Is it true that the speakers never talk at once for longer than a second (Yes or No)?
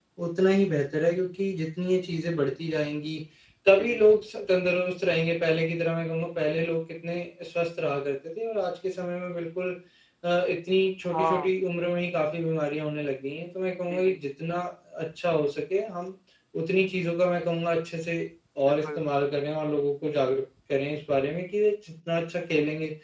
Yes